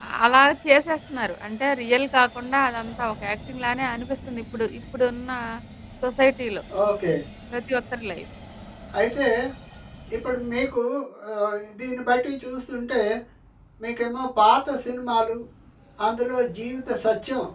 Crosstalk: none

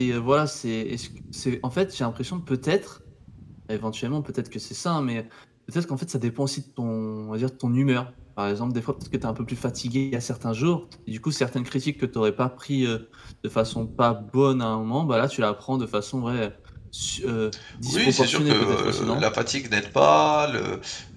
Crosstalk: present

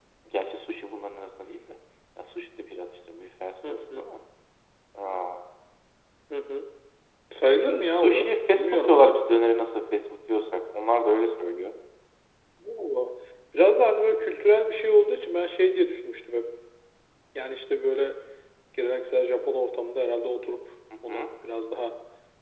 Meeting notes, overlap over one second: present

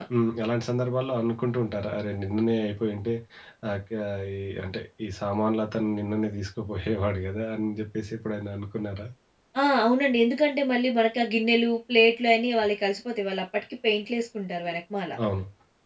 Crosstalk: none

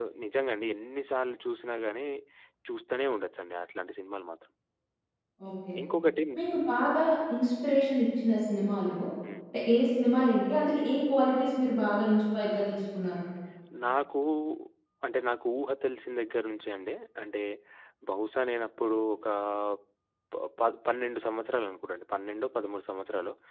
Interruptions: none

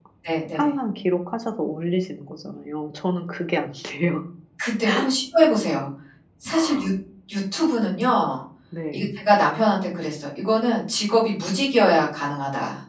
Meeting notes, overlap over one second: none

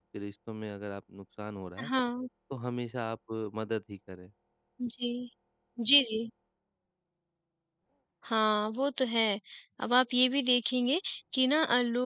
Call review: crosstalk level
none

